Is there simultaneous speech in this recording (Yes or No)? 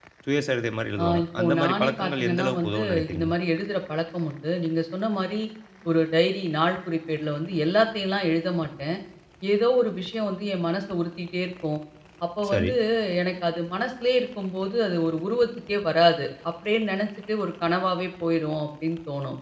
Yes